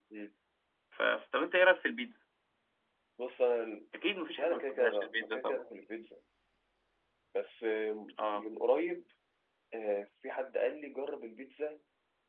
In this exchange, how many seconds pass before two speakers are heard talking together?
4.4 s

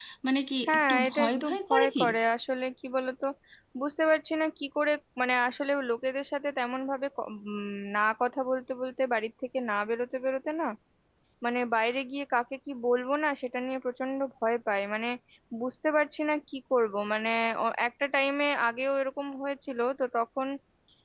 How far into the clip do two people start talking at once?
0.7 s

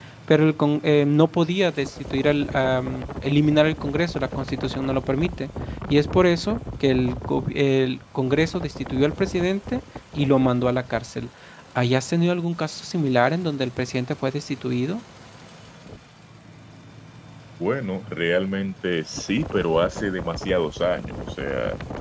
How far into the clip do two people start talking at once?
none

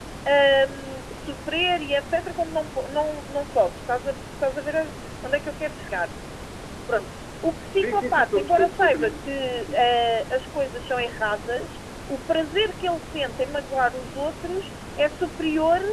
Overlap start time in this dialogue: 7.7 s

